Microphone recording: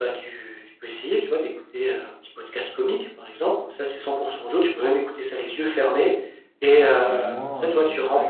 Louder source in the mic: echo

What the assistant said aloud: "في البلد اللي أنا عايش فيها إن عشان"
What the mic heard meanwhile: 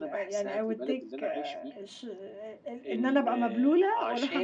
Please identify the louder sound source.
user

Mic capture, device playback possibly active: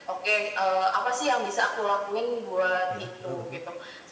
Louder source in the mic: echo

